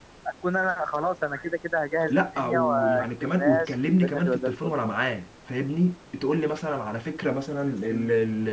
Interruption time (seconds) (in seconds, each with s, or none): 2.1 s